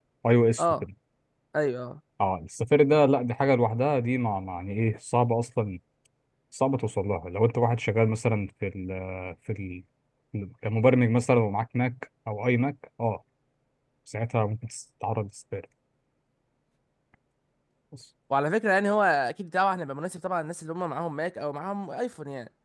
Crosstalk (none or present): none